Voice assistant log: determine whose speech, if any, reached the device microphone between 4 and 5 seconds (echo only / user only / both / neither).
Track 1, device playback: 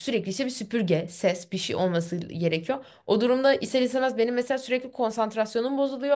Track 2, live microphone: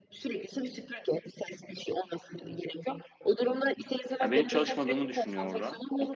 both